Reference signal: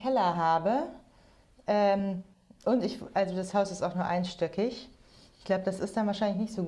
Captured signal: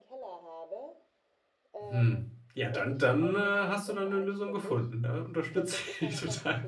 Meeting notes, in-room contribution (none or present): present